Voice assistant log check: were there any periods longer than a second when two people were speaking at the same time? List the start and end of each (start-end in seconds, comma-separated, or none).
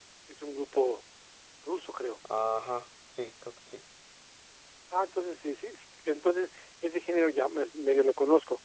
none